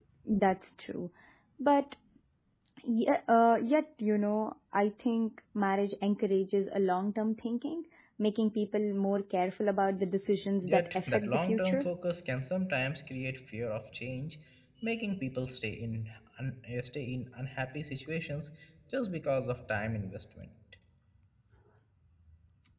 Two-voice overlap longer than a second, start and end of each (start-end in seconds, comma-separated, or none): 10.6-11.9